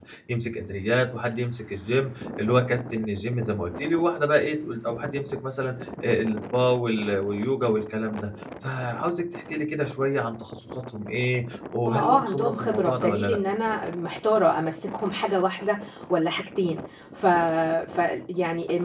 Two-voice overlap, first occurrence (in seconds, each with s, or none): 11.8 s